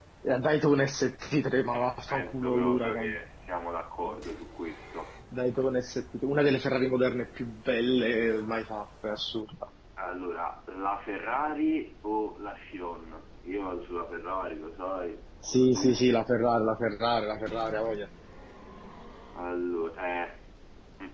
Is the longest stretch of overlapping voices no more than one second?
No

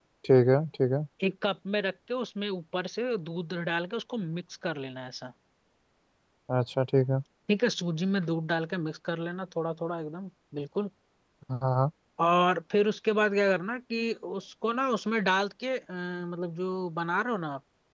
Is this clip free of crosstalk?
Yes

